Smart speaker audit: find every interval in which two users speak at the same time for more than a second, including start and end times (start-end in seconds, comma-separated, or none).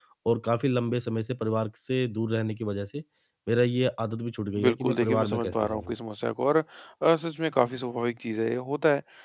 4.6-6.0